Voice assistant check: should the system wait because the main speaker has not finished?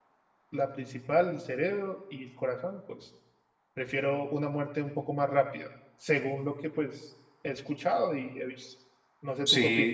No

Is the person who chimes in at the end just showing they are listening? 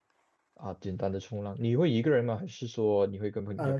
No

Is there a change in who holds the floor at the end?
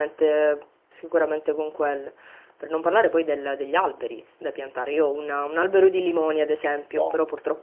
No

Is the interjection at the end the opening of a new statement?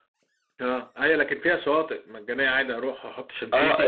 Yes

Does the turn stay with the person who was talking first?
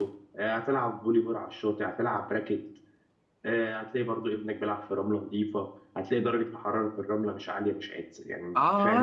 No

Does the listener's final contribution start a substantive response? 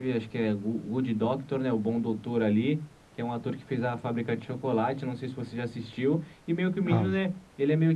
No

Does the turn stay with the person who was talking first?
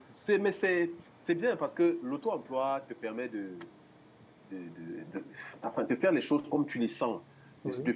Yes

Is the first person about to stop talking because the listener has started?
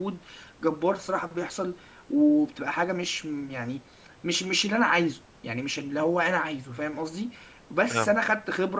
No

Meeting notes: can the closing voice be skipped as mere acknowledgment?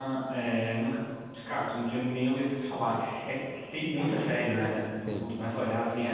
Yes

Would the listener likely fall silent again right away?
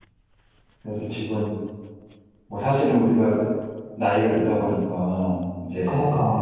Yes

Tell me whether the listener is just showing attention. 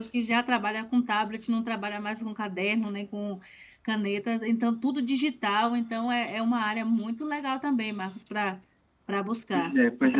No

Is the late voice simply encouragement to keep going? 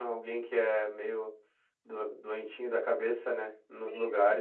No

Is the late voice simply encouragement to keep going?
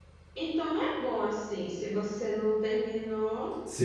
No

